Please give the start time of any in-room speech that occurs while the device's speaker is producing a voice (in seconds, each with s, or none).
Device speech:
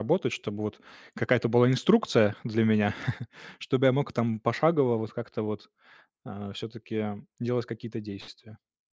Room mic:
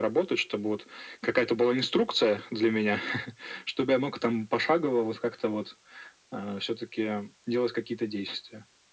none